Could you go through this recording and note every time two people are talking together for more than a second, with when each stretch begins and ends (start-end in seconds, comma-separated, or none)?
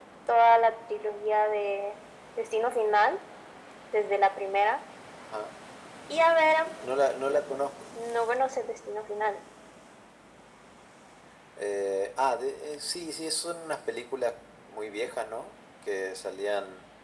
none